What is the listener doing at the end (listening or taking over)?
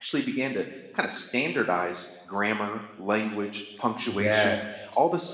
listening